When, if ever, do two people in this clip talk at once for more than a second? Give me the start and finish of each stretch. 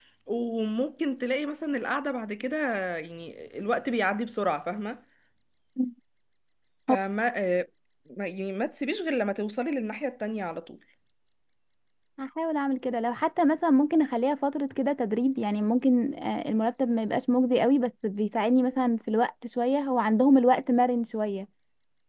none

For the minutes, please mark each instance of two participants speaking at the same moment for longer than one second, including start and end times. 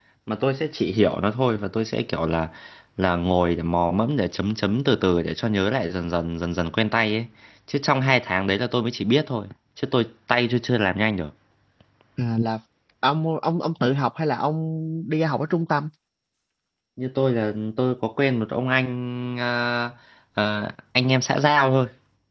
none

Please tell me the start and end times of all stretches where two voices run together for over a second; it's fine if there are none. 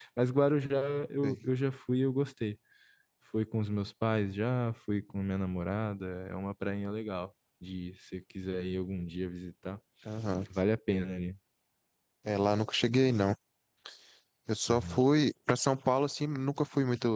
none

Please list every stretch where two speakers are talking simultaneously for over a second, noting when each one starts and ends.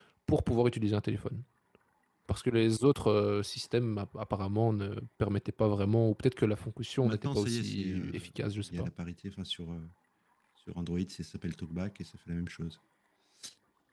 7.0-8.9

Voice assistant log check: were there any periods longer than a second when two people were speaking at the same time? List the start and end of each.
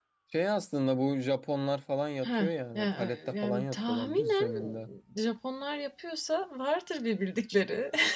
2.2-4.7

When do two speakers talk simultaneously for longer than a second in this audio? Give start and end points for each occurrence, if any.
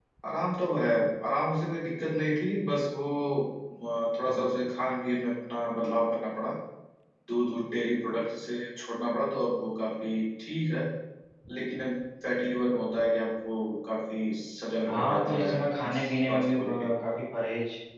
14.9-16.7

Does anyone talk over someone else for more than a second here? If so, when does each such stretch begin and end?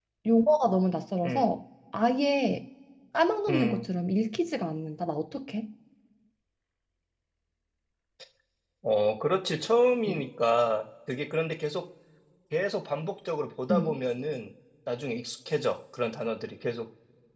none

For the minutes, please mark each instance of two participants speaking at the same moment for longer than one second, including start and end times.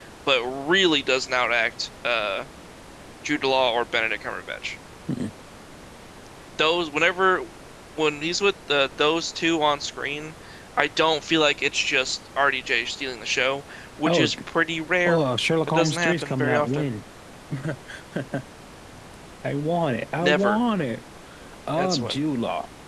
15.7-16.9

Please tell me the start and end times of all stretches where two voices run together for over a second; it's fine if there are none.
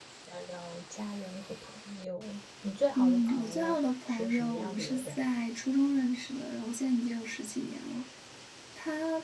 3.0-5.2

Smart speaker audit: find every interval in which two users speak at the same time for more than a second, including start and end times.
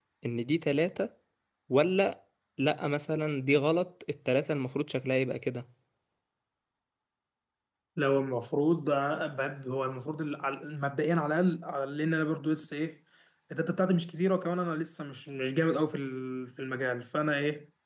none

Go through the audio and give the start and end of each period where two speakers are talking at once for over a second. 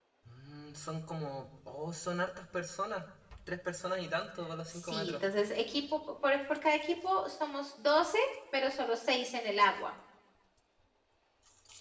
none

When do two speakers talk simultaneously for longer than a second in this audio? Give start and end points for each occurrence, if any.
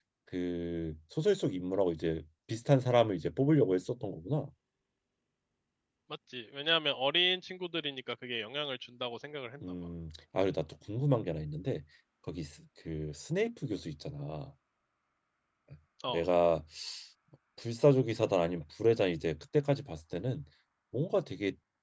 none

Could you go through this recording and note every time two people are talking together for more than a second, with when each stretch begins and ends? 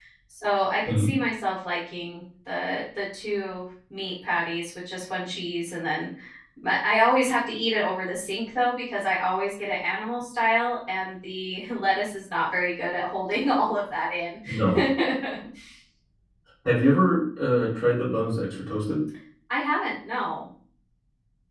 none

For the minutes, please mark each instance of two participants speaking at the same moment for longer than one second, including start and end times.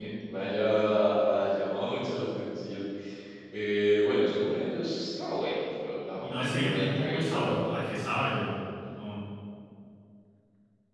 6.2-7.7

